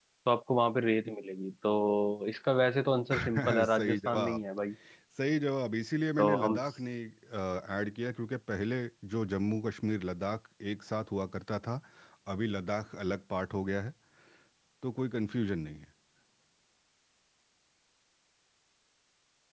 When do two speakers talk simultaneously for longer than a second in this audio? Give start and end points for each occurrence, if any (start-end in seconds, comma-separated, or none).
3.1-4.4